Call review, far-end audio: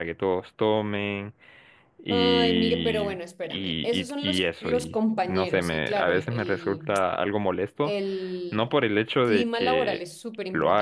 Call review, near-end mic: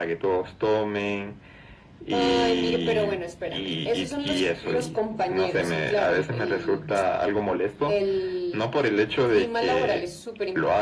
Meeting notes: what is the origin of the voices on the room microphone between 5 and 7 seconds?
echo only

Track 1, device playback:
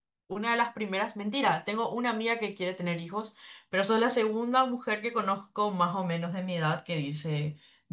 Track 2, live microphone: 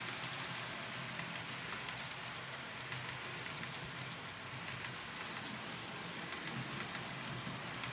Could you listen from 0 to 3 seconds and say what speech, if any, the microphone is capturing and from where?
neither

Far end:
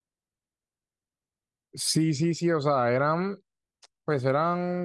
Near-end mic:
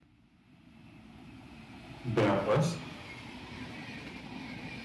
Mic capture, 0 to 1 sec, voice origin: neither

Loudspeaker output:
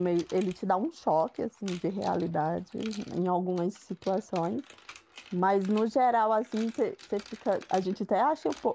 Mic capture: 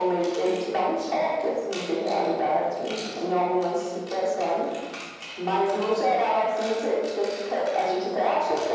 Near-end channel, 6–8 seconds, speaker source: echo only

